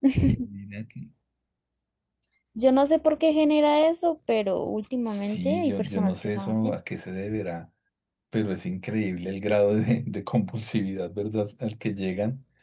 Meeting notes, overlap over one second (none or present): present